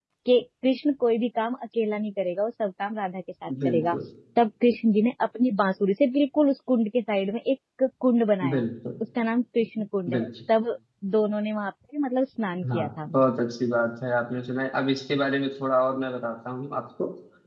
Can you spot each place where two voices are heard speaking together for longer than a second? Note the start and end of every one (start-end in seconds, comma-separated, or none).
none